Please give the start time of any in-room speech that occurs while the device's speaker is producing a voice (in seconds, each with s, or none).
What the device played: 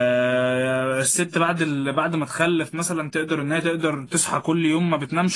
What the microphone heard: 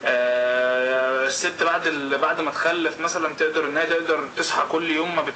none